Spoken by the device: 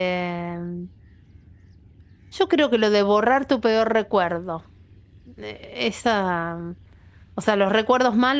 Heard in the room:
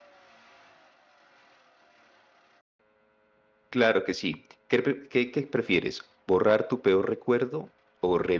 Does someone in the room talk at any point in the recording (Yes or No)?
Yes